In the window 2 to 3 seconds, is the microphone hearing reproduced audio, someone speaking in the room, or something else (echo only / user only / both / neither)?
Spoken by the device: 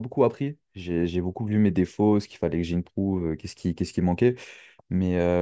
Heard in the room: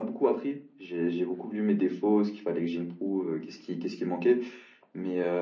echo only